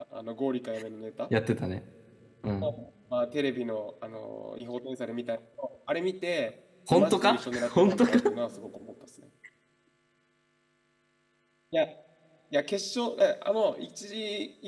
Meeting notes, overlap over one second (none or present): present